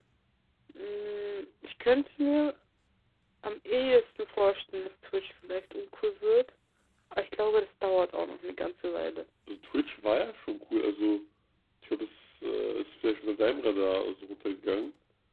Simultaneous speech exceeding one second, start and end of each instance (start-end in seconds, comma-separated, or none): none